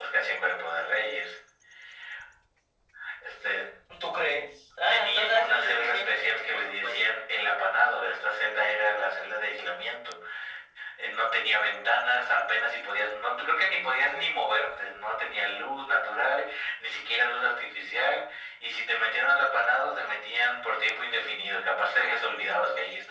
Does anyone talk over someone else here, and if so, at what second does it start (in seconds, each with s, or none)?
4.9 s